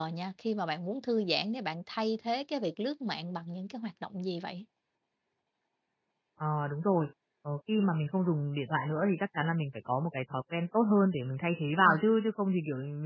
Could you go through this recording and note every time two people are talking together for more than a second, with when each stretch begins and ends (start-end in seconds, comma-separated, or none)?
none